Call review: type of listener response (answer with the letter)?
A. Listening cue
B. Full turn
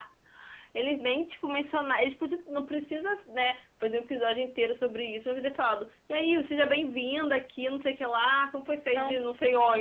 A